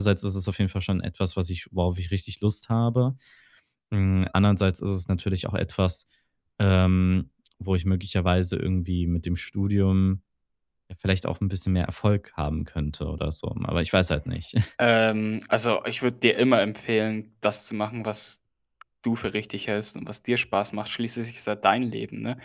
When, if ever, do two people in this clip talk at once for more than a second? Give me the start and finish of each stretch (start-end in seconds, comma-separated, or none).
none